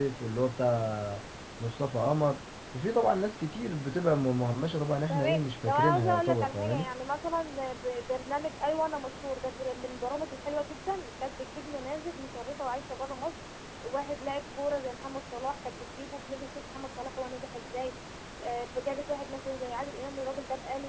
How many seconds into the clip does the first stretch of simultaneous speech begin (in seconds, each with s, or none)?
5.1 s